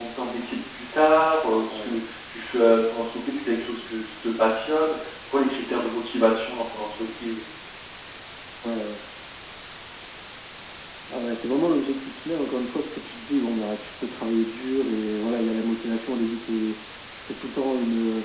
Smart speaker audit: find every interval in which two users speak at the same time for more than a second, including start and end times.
none

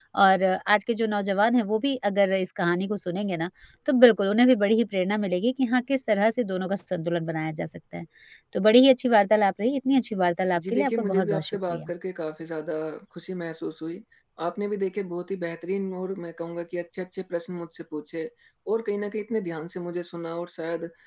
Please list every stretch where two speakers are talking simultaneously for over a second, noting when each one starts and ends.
10.6-11.9

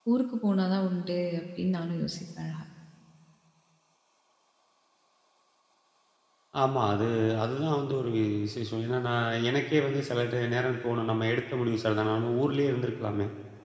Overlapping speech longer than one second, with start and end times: none

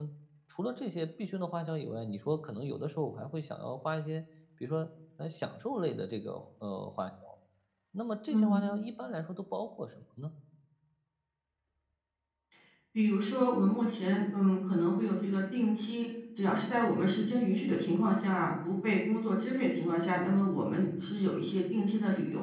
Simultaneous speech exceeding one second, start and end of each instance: none

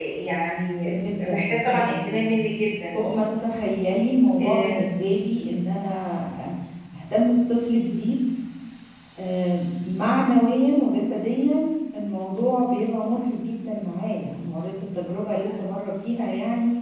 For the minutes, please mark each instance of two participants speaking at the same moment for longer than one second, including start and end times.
1.0-2.4

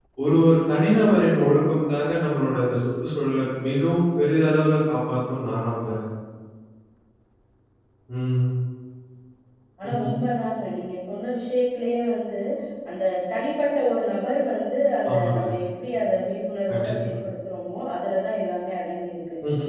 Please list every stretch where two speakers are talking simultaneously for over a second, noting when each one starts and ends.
none

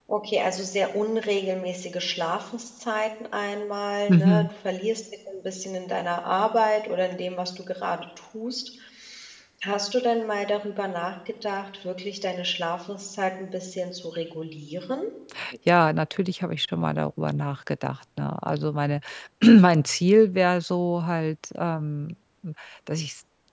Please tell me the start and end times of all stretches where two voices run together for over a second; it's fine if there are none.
none

